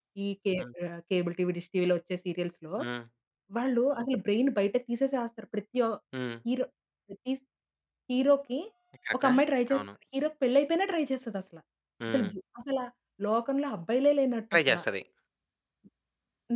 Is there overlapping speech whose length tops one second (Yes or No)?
No